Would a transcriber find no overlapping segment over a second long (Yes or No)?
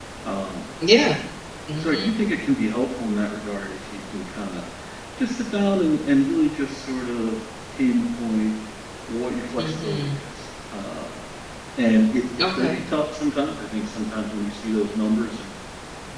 Yes